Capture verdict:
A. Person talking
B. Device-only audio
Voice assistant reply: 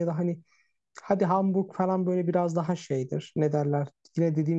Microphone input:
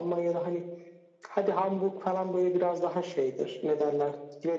B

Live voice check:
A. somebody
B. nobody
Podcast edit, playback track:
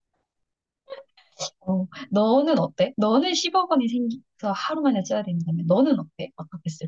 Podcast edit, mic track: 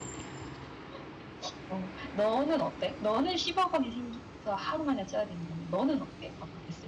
B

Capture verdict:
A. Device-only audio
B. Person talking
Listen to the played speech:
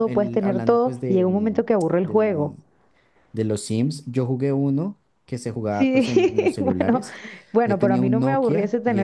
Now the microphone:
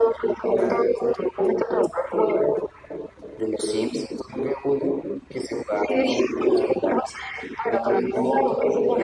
B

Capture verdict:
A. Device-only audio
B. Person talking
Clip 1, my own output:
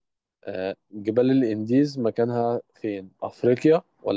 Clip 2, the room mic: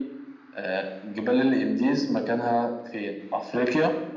A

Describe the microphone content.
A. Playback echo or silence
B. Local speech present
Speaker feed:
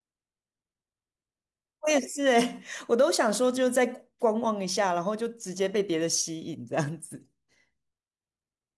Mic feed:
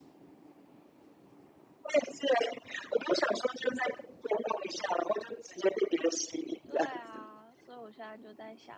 B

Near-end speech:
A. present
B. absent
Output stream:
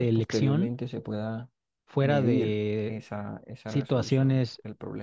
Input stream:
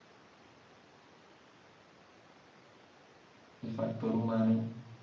A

